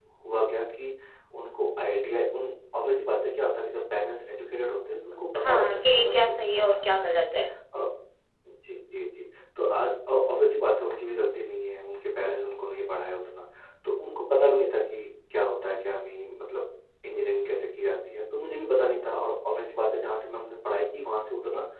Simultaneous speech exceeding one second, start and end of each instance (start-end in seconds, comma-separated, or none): 5.4-7.0